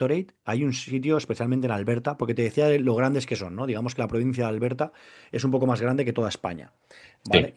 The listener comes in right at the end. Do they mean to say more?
No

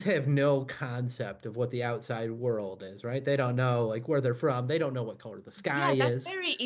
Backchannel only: No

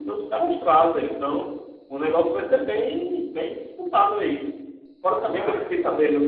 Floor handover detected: No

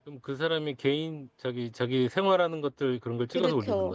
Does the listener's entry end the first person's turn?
Yes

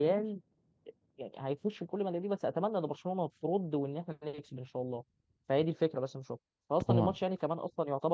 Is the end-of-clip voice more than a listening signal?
No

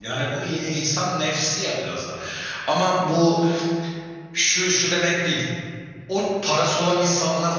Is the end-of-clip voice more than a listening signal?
No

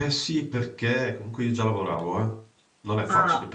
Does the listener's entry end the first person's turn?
No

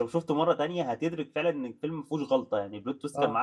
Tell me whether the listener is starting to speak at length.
Yes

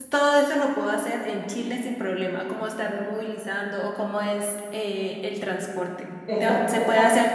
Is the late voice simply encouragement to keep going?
Yes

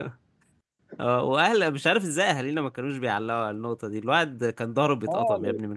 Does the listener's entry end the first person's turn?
Yes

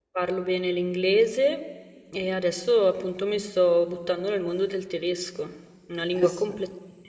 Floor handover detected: No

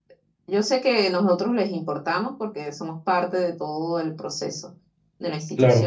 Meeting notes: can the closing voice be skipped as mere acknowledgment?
Yes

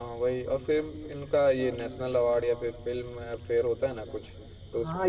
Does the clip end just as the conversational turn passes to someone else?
Yes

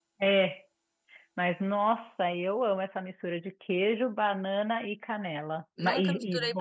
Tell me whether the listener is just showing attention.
No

